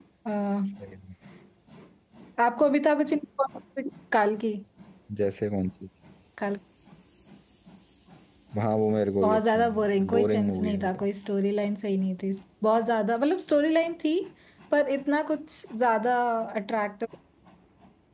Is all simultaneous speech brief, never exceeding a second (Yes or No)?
No